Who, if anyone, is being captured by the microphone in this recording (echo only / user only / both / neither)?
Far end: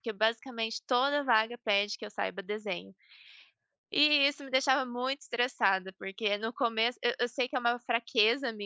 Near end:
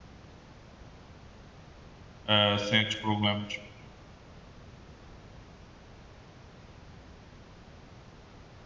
user only